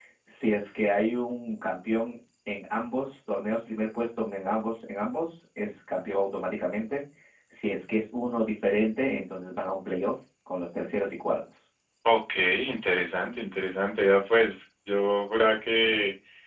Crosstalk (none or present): none